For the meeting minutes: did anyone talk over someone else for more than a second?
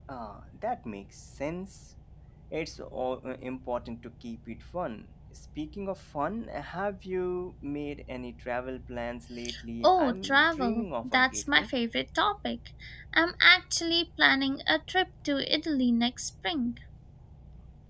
Yes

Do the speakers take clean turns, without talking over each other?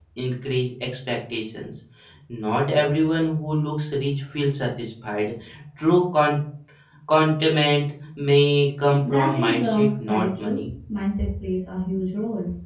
No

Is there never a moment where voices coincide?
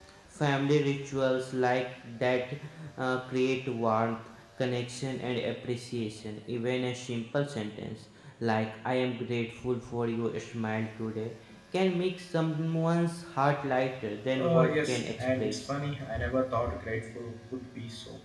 No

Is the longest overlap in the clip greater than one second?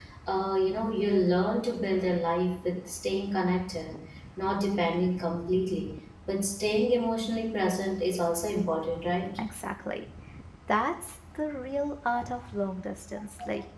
No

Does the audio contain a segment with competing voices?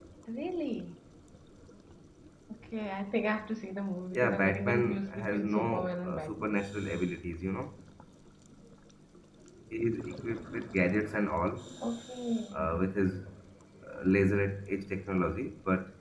Yes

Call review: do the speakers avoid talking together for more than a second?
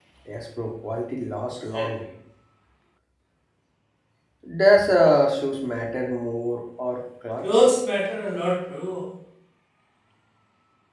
Yes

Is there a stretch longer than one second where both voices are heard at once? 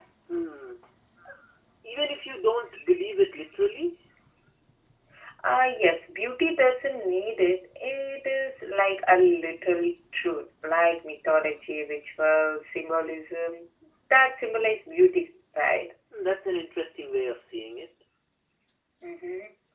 No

